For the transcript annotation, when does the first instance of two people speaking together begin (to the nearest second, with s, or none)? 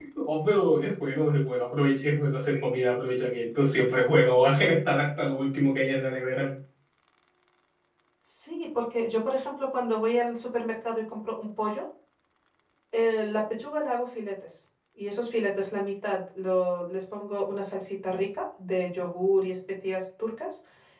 none